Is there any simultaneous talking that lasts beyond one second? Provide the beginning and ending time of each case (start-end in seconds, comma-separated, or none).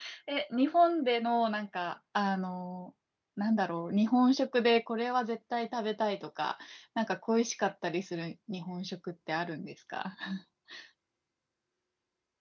none